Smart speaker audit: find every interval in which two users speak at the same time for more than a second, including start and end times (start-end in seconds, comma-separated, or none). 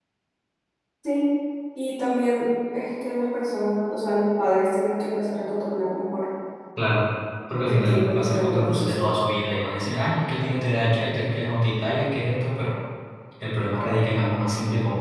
7.6-9.2